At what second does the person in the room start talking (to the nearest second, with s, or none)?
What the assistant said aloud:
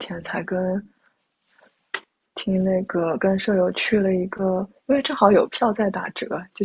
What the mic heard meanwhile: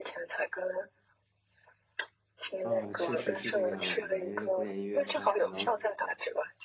3 s